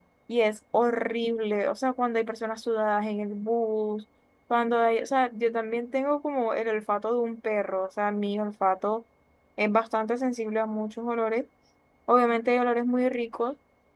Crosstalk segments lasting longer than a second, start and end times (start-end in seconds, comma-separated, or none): none